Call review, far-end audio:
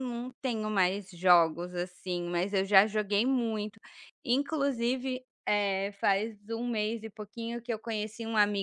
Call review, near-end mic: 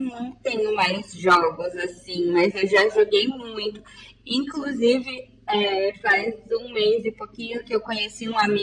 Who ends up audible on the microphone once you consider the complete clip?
echo only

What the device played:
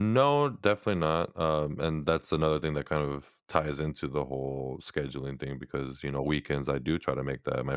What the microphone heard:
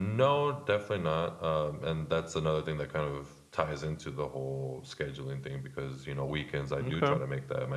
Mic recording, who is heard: both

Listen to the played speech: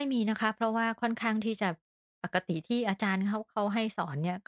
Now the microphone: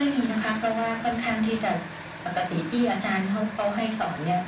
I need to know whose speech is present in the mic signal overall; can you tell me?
echo only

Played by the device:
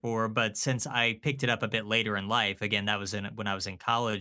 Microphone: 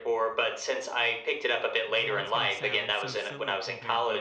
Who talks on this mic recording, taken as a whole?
both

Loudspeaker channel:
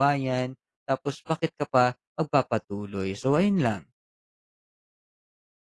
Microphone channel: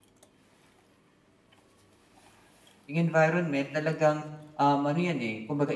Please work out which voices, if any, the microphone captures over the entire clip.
user only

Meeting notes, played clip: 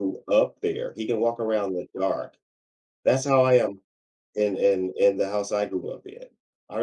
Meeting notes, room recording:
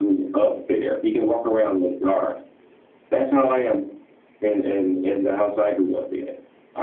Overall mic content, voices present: echo only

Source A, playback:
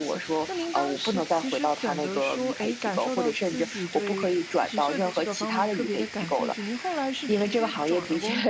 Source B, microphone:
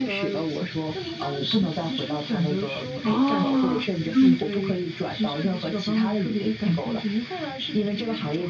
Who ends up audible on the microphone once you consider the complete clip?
both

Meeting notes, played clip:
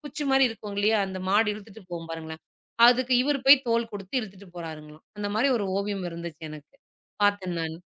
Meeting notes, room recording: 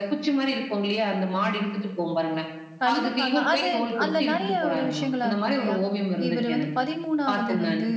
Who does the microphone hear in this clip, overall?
both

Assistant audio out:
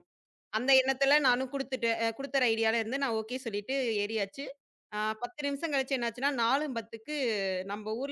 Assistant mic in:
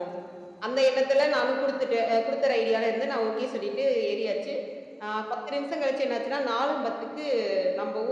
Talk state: echo only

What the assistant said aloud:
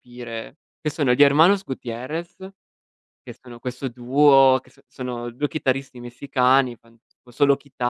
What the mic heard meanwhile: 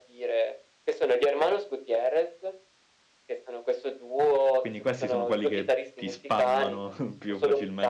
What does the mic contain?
both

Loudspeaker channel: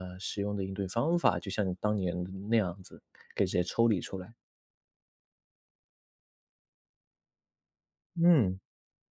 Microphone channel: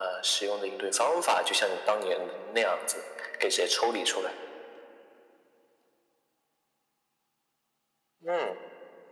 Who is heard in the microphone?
echo only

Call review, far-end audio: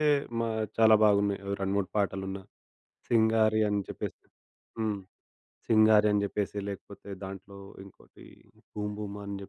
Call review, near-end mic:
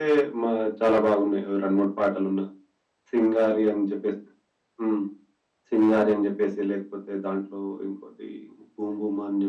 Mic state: echo only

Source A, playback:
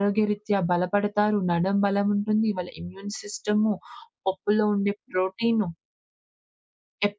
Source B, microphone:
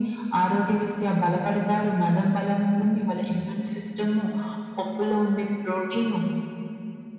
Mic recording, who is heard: echo only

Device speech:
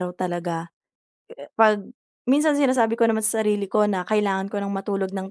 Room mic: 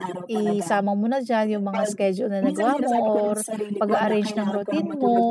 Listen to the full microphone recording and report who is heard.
both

